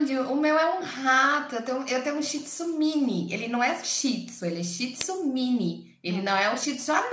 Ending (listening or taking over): listening